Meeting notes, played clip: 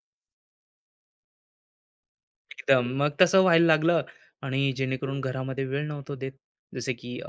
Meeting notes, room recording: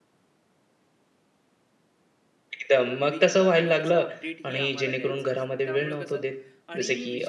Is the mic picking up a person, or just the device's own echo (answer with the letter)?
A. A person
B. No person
A